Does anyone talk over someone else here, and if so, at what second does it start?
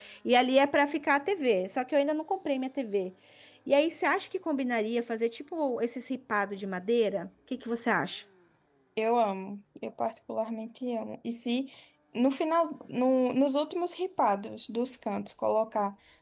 none

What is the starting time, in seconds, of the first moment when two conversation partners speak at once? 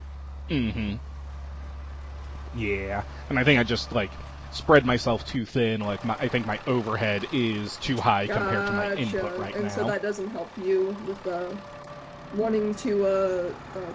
8.3 s

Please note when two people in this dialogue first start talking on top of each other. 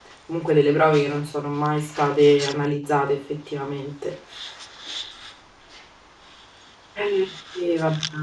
none

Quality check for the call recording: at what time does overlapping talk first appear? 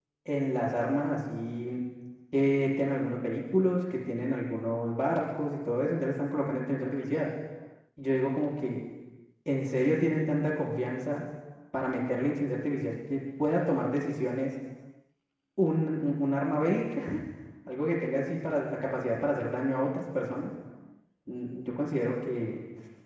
none

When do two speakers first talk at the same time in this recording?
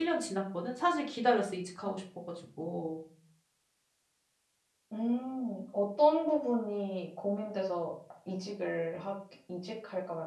none

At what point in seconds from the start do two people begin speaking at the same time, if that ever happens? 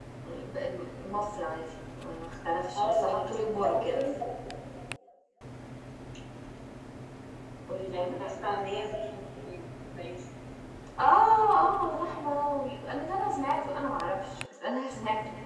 2.8 s

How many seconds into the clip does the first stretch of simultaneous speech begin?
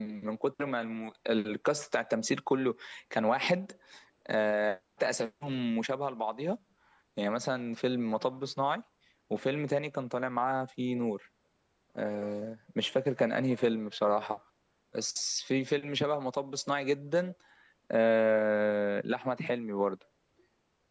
none

